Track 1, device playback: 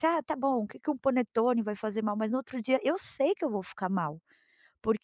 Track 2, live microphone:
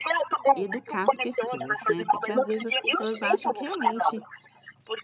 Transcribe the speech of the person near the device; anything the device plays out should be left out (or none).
educar as pessoas, né, porque às vezes as pessoas acham que realmente